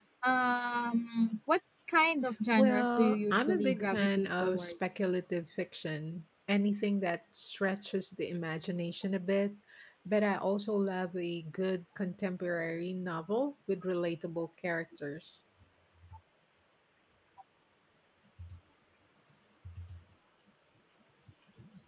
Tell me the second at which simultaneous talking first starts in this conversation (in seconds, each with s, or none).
2.6 s